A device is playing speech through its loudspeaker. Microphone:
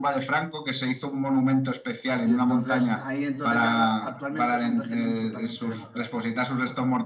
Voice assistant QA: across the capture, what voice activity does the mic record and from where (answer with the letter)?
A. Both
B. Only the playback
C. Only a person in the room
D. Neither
A